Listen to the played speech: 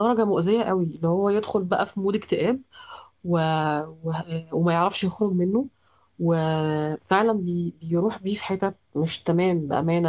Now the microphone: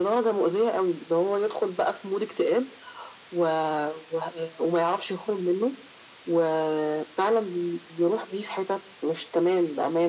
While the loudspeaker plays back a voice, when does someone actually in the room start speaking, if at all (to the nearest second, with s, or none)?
none